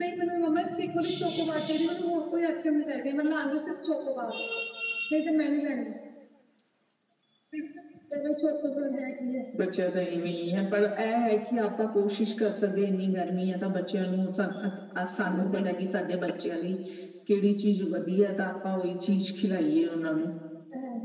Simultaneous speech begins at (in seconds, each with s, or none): none